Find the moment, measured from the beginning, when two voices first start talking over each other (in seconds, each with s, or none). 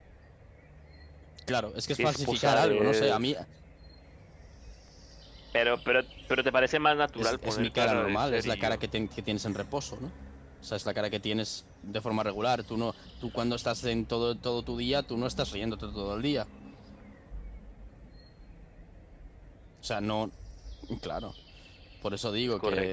1.9 s